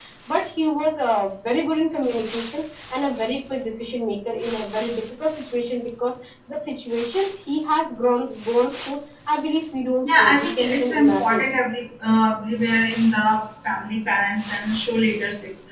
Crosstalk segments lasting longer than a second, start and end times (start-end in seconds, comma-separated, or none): 10.0-11.4